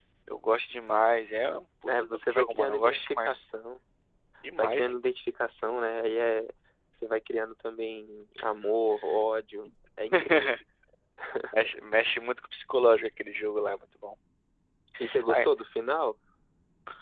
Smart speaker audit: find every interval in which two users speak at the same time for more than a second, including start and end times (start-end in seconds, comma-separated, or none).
2.0-3.4